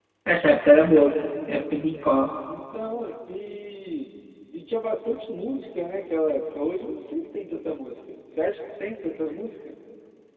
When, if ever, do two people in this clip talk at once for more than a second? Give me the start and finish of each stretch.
none

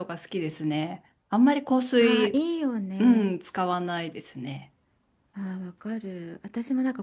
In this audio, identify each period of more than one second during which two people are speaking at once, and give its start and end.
none

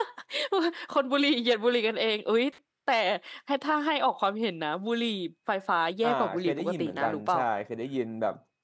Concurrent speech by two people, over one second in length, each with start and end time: 6.0-7.4

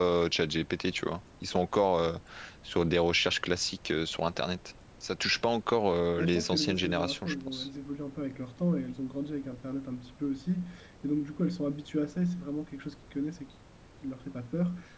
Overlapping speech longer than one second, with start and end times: 6.2-7.7

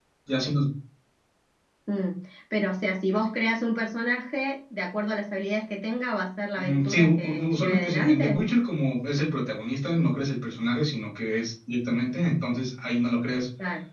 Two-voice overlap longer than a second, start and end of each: 6.6-8.4

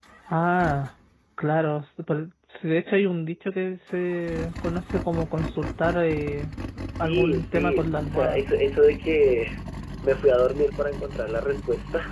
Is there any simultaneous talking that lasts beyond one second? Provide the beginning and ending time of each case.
7.0-8.4

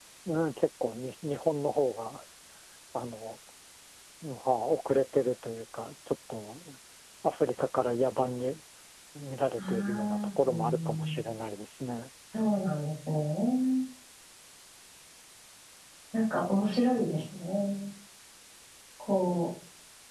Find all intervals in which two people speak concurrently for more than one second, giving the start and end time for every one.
9.6-11.2

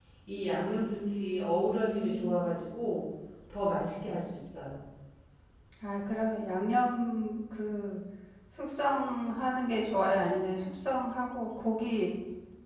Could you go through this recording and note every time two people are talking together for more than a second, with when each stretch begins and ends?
0.9-2.5

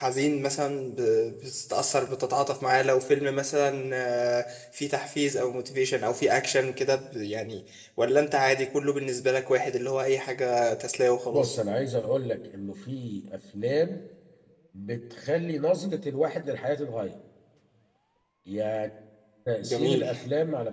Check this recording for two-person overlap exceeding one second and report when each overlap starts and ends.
none

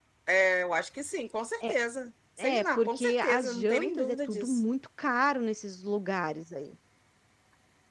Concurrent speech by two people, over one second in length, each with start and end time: 2.6-4.6

